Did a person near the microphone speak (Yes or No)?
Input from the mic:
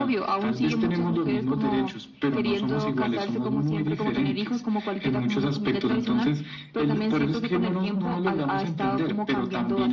No